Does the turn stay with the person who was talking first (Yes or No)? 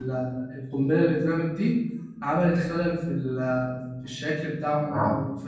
No